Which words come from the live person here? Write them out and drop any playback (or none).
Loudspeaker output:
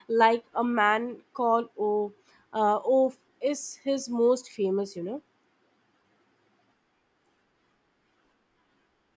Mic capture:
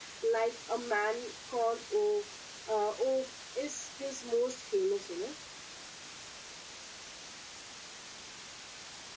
none